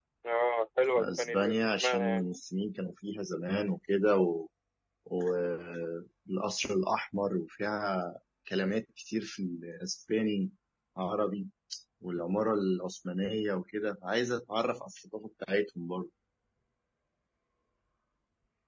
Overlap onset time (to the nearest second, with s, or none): 1 s